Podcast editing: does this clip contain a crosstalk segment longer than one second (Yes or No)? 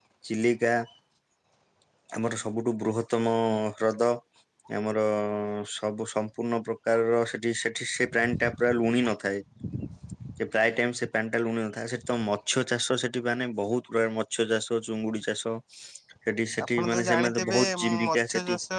Yes